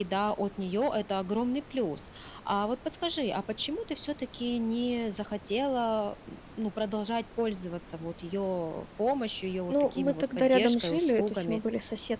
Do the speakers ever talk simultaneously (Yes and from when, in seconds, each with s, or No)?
Yes, from 9.7 s